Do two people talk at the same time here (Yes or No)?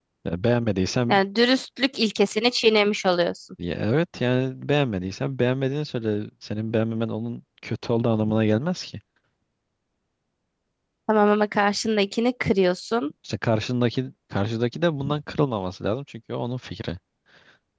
No